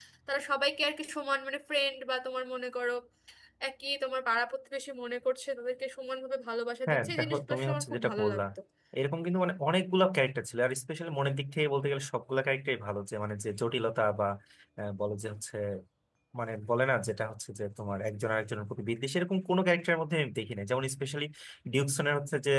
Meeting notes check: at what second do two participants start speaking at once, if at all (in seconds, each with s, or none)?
6.9 s